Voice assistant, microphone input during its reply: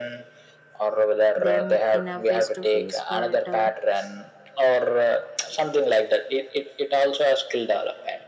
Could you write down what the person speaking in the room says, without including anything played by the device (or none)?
them in a face to face but uh,